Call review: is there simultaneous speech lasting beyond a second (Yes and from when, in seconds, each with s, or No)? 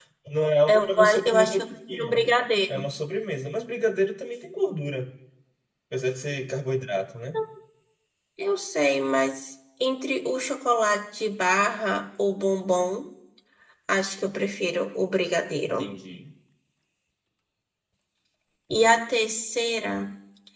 Yes, from 0.7 s